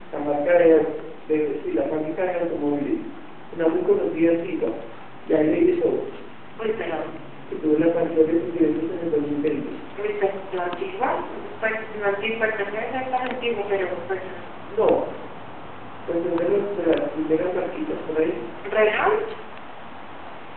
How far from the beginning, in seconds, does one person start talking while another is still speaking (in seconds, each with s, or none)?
none